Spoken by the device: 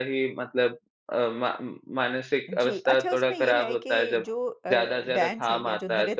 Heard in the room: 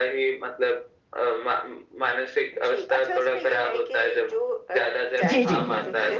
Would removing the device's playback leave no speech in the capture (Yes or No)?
No